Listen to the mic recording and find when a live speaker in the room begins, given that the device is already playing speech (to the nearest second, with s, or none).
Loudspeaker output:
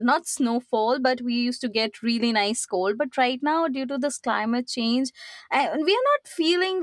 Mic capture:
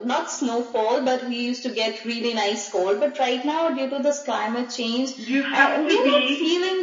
5 s